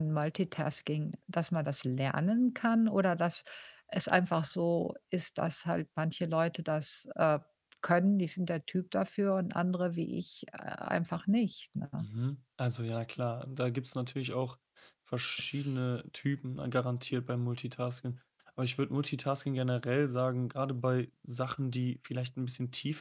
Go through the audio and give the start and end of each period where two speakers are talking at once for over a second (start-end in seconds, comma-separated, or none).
none